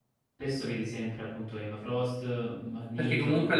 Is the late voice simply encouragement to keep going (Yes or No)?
No